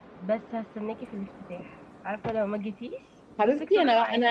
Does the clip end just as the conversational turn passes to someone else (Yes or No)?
Yes